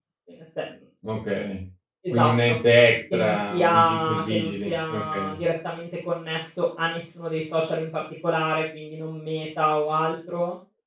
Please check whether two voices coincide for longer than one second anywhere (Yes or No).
Yes